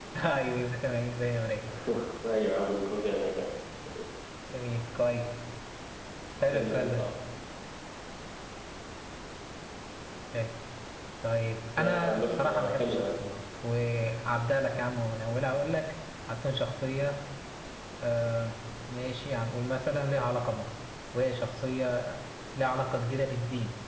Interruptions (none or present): present